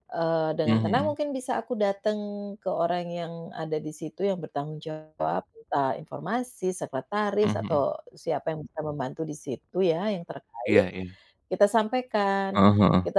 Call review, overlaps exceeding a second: none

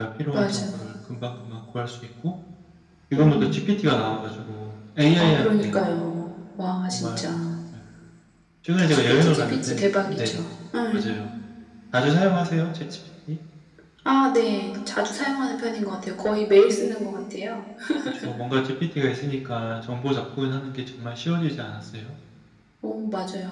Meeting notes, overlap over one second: present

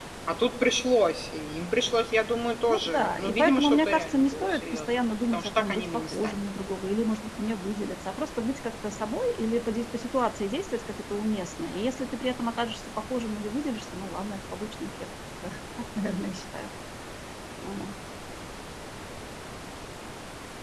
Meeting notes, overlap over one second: present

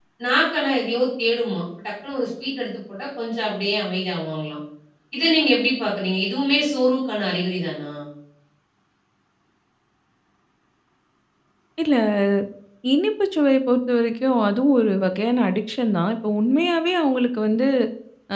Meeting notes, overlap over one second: none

